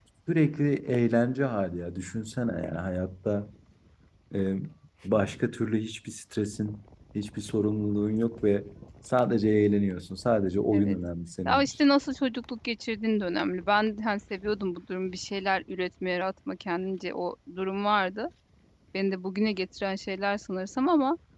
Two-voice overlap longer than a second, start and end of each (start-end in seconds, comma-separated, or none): none